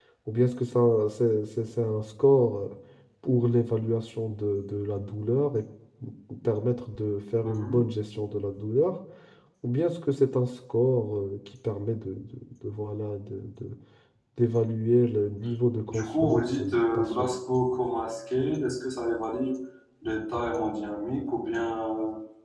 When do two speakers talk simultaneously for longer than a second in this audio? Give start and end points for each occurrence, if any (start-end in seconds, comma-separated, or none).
15.9-17.3